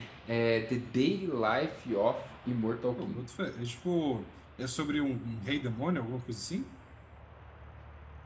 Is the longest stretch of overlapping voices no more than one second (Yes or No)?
Yes